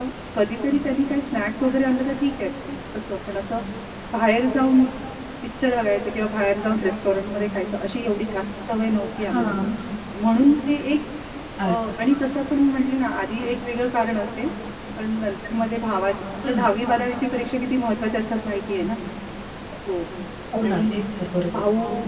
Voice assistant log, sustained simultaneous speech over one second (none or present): none